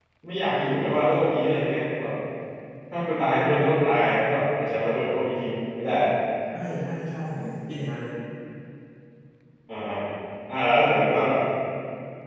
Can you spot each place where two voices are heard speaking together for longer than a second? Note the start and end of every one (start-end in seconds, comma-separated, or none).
none